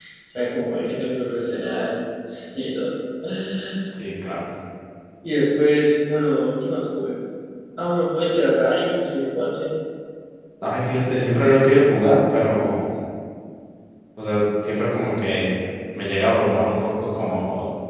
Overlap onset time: none

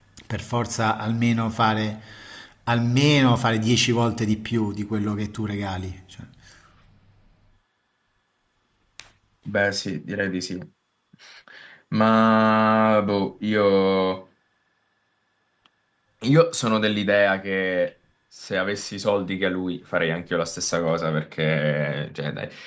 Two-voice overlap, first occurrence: none

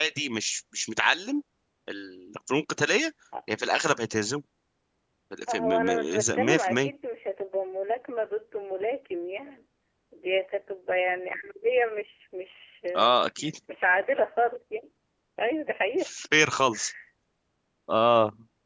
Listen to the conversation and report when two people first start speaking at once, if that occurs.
5.5 s

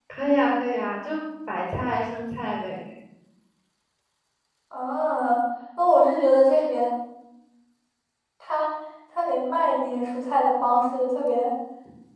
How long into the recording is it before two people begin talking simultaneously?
none

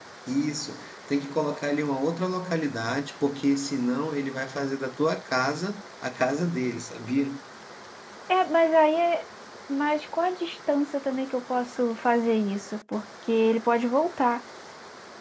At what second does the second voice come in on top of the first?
none

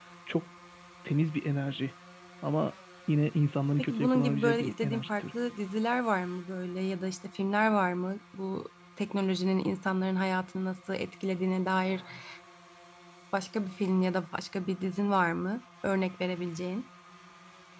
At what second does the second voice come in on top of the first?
3.8 s

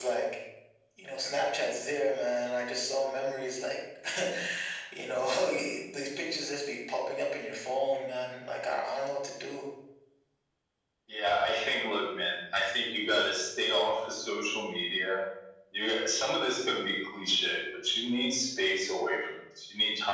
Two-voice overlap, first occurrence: none

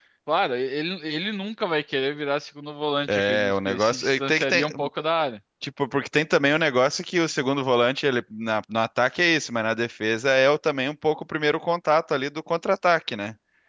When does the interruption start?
3.1 s

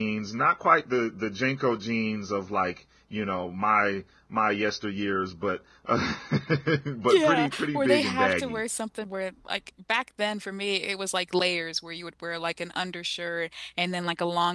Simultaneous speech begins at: 7.1 s

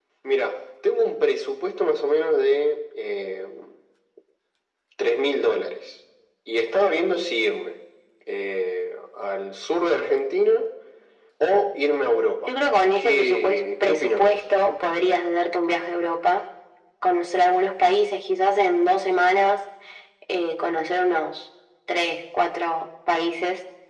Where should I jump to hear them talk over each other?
13.0 s

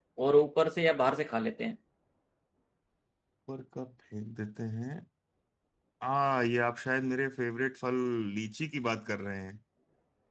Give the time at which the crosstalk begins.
none

